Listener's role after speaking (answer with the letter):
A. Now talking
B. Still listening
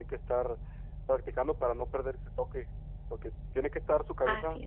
B